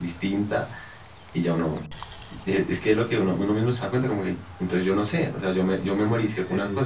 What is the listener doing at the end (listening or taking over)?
taking over